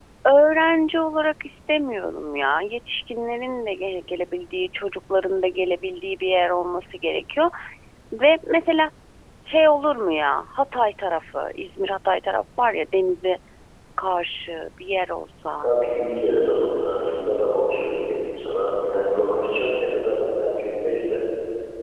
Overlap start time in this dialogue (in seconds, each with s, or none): none